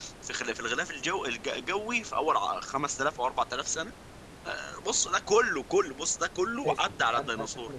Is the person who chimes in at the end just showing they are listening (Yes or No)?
No